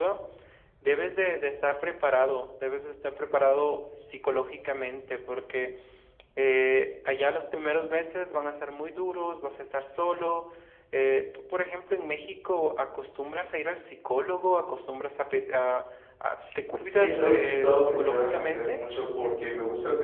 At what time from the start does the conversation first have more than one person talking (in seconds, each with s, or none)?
17.0 s